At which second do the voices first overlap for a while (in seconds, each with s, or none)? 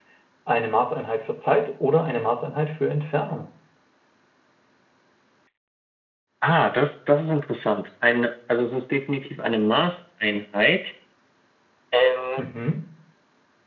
none